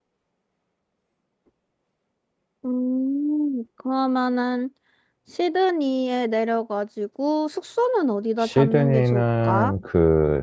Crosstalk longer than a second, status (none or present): present